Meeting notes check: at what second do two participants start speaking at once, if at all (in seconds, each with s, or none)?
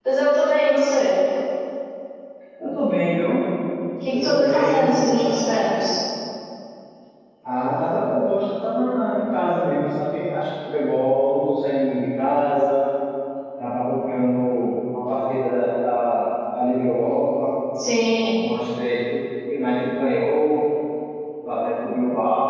4.1 s